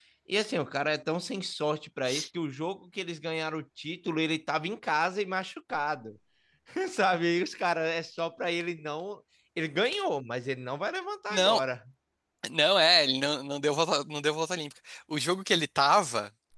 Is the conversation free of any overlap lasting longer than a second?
Yes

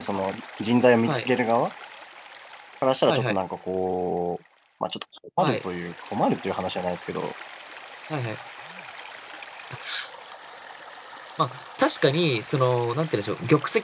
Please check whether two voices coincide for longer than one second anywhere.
No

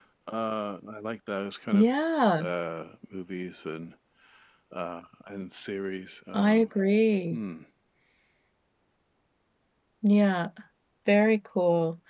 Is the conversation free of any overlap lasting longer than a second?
Yes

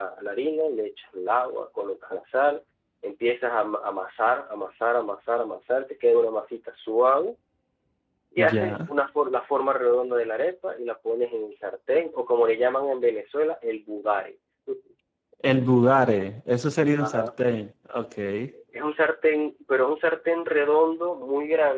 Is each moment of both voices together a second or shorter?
Yes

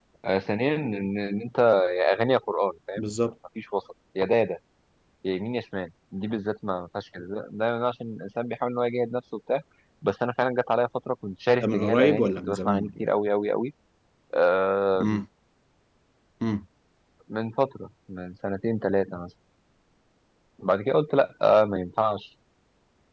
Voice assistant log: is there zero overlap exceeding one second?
No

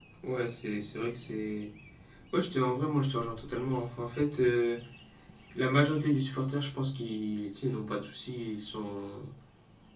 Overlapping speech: No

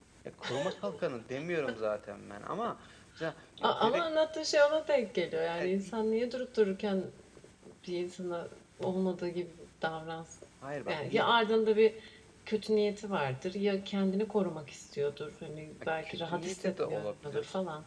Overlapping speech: Yes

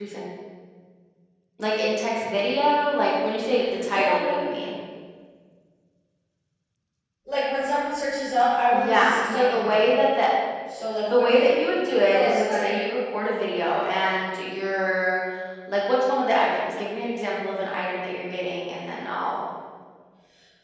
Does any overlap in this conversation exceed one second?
Yes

